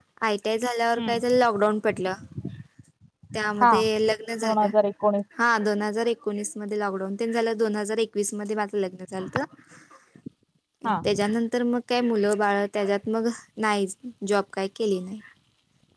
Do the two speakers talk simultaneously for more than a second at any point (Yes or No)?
No